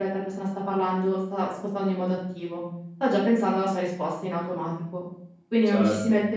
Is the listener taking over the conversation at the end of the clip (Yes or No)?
No